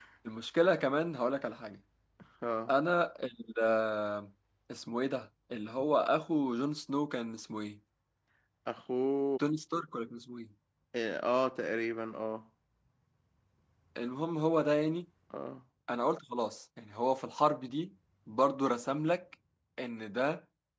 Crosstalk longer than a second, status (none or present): none